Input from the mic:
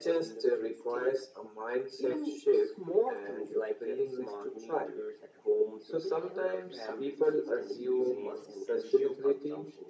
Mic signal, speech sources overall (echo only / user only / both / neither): both